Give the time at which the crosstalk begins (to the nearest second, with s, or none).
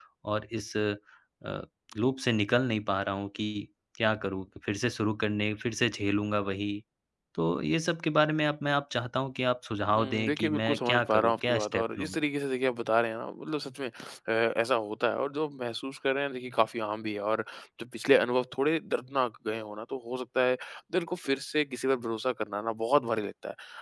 10 s